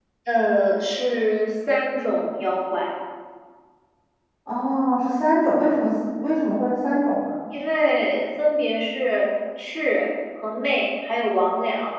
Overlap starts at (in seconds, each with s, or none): none